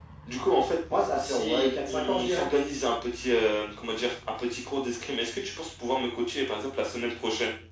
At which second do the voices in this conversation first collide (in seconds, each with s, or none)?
1.2 s